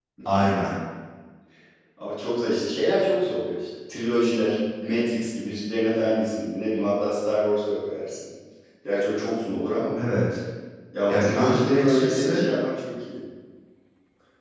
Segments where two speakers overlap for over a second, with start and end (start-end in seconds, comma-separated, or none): 11.1-12.4